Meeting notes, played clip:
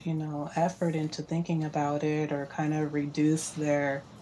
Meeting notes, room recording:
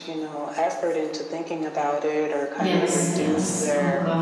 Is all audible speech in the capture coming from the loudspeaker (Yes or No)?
No